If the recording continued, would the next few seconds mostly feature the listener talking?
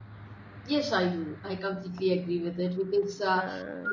No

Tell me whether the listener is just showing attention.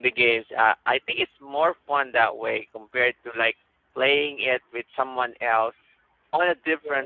Yes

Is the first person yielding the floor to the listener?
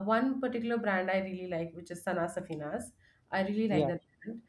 No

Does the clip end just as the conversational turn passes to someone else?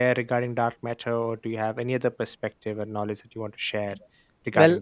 Yes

